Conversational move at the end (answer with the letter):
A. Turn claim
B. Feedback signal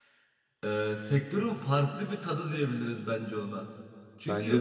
B